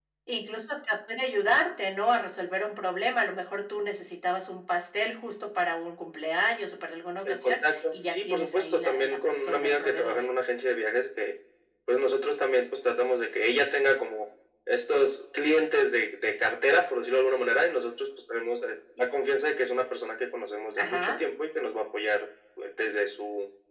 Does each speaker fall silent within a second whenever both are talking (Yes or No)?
No